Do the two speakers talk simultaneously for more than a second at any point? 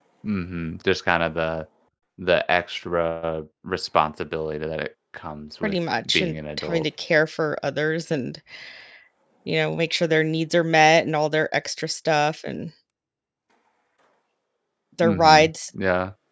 Yes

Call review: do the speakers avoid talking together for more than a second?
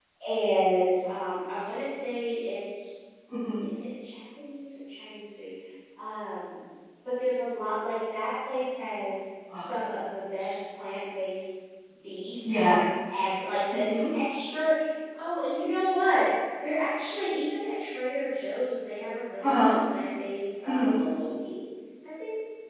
Yes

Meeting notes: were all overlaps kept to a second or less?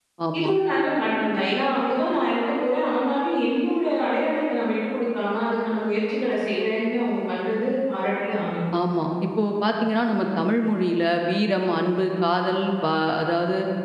Yes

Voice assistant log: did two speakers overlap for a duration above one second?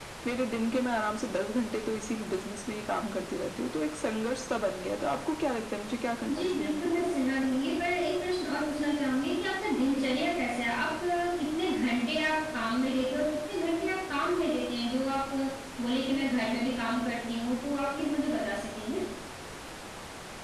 No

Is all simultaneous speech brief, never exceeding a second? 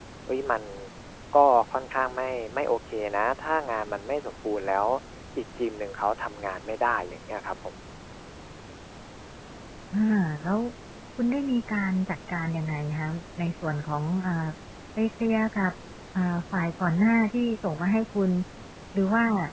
Yes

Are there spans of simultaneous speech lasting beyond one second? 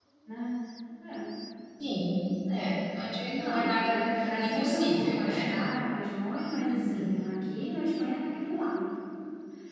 Yes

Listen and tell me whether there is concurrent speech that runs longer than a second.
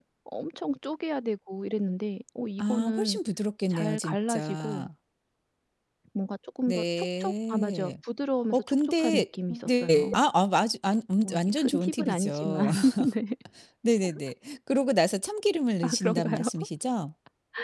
Yes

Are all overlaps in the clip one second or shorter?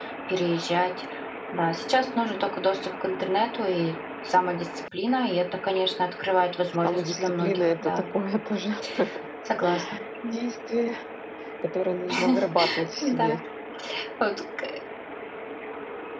No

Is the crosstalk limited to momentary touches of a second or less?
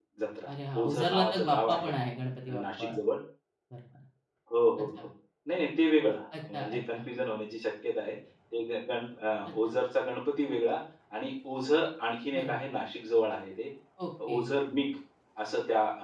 No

